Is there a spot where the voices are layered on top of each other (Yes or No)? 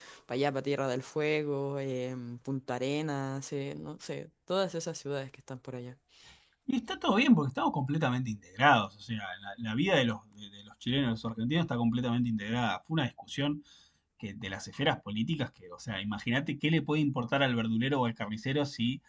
No